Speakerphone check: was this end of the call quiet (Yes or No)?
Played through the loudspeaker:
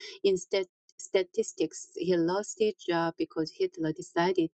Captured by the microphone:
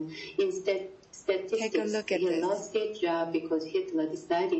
No